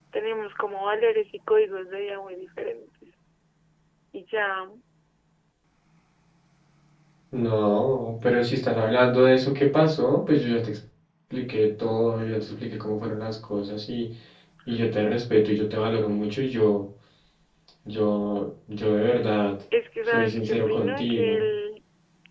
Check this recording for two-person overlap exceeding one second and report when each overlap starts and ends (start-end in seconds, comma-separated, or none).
20.1-21.4